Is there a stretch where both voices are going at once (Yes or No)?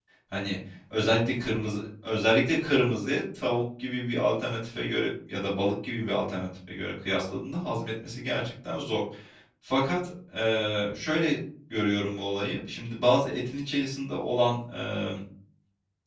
No